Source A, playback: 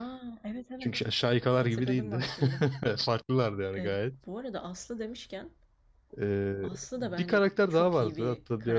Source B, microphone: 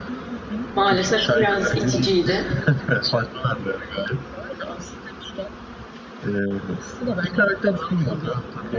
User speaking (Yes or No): Yes